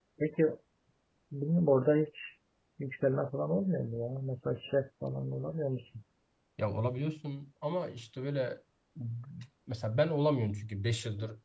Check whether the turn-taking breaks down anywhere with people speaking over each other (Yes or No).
No